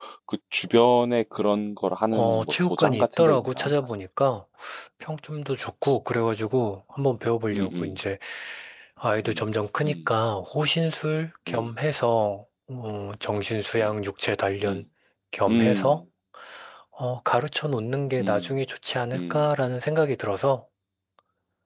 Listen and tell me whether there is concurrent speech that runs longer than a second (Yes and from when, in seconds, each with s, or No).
Yes, from 2.1 s